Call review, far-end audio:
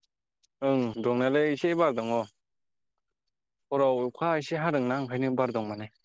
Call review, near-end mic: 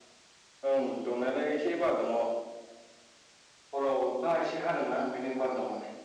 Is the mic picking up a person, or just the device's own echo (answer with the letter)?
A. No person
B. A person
A